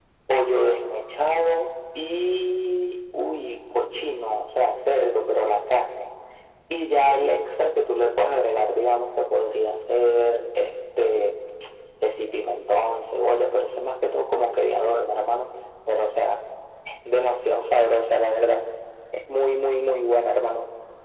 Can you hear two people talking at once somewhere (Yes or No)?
No